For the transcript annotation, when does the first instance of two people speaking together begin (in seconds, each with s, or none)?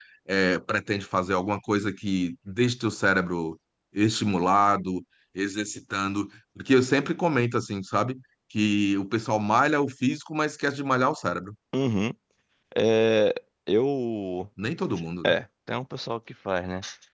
none